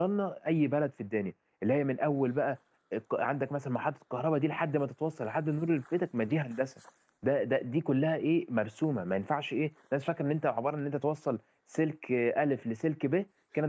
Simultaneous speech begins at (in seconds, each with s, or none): none